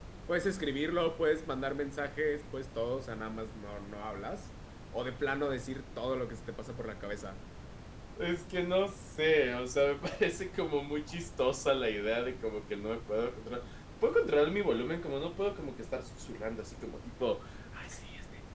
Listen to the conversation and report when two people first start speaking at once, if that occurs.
none

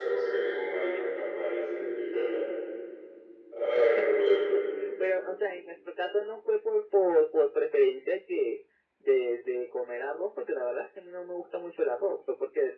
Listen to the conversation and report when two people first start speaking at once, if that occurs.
none

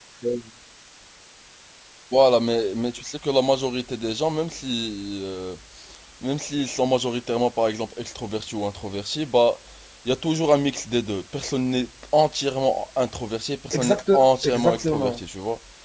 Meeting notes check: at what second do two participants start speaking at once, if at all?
13.7 s

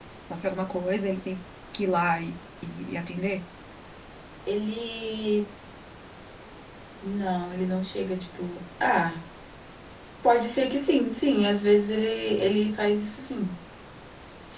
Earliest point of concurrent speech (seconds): none

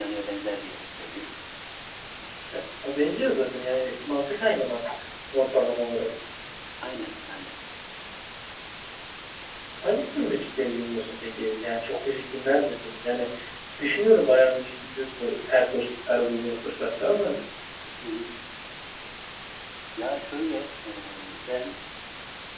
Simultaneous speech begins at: none

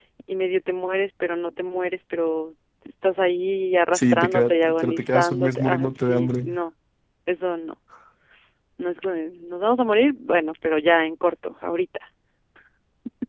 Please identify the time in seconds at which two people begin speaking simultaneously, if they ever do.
3.9 s

